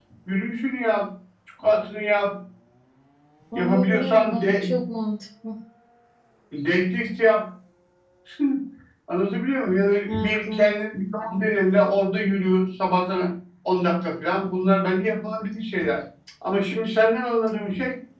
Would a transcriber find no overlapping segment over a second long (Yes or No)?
No